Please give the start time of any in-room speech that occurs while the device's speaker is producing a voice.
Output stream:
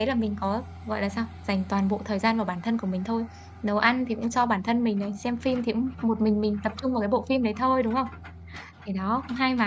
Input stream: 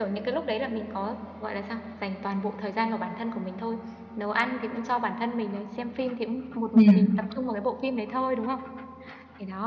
6.7 s

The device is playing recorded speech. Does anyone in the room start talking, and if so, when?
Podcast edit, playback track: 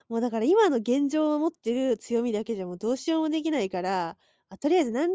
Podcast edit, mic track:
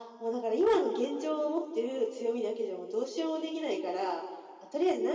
none

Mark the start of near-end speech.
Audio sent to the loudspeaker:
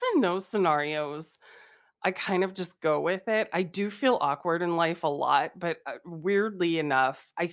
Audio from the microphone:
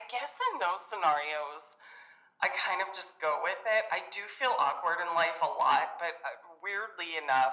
none

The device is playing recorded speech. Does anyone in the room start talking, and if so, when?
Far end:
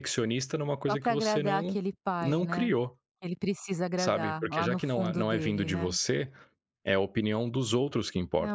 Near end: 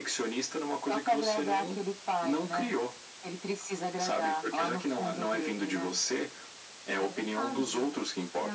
7.0 s

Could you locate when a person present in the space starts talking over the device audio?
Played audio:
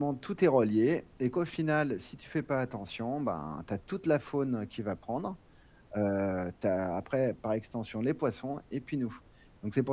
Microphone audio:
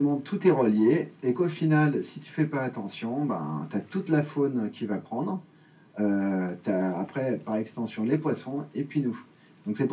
none

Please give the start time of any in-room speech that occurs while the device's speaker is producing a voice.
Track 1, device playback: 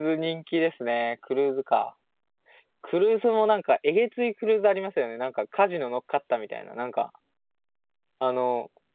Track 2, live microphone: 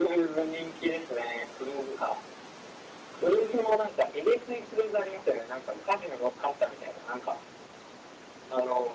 none

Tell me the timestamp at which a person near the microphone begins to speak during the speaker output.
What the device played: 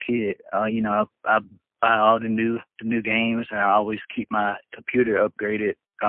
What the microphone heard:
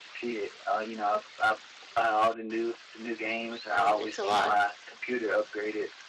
3.7 s

